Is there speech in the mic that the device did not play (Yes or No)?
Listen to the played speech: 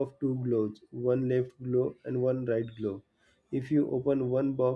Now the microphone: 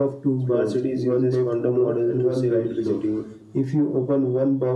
Yes